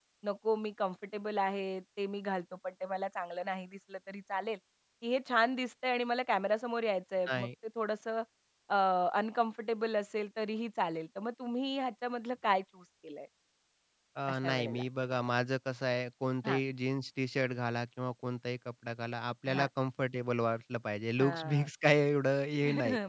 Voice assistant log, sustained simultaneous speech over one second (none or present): none